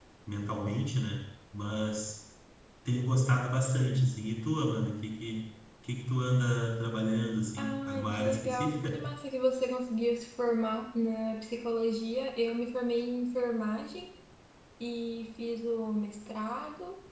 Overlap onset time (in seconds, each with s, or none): 7.6 s